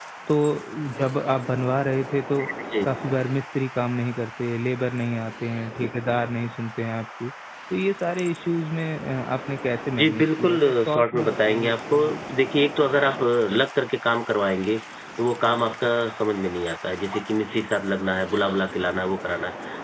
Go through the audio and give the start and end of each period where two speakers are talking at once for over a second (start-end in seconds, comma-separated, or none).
10.0-12.0